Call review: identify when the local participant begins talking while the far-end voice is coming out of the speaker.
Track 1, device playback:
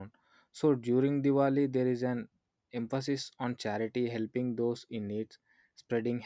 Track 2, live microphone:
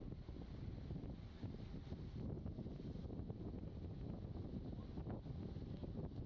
none

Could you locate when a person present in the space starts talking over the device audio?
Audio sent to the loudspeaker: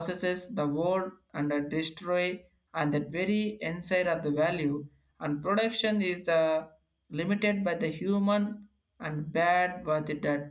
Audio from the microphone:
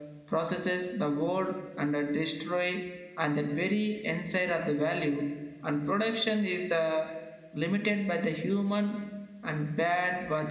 none

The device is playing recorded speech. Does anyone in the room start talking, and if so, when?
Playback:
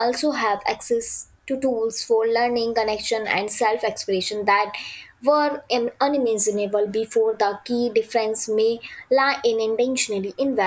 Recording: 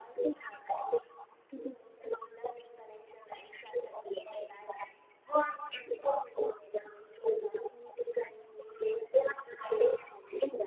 none

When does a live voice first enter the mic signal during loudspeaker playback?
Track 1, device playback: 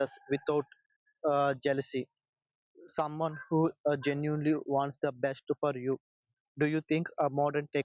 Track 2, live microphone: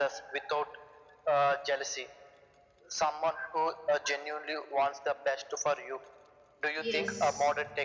7 s

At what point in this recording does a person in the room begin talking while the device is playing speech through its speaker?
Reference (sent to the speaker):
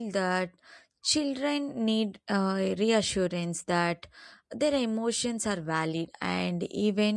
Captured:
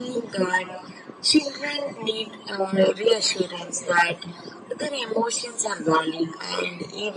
none

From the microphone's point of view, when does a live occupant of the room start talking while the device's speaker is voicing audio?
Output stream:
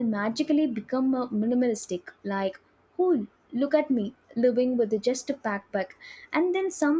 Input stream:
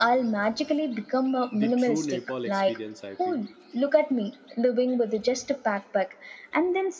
2 s

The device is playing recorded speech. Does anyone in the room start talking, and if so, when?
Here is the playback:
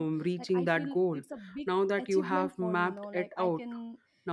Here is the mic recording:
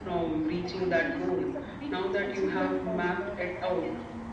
none

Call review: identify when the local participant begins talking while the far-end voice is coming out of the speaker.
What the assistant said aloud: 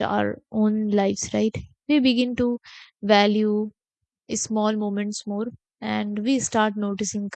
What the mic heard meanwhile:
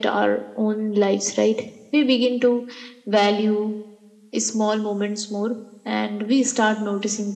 none

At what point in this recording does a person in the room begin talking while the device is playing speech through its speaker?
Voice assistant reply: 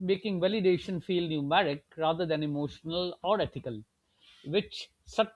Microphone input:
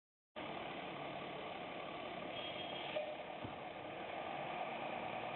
none

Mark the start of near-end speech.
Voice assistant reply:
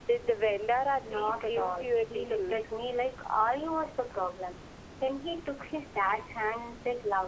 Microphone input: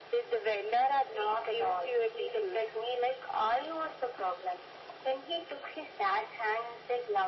none

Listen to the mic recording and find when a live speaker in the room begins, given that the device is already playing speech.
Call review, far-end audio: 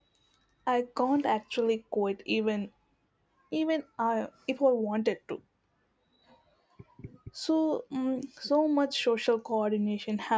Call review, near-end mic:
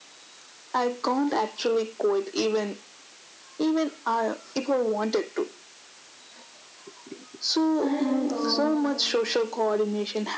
8 s

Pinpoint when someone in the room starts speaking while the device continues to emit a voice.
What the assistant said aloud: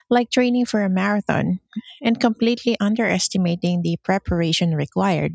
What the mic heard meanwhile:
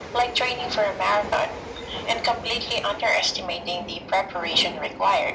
none

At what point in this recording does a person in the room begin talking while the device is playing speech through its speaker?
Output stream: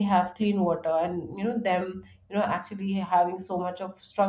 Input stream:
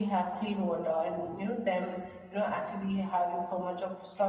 none

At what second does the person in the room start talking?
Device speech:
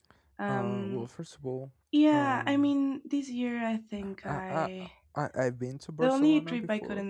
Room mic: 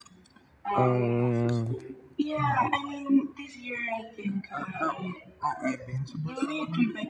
1 s

